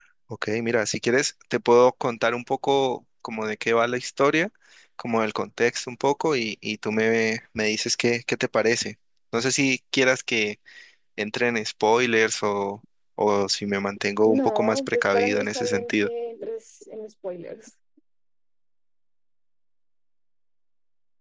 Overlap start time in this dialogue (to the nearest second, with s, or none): 14 s